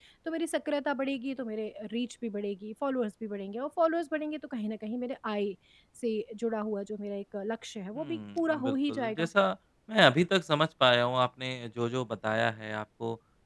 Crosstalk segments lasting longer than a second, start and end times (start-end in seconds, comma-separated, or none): 8.0-9.3